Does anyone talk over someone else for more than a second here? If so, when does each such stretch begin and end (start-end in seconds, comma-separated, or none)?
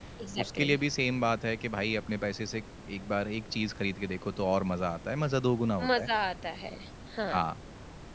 none